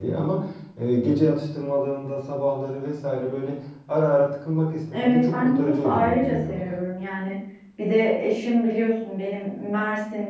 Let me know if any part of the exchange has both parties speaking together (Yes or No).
Yes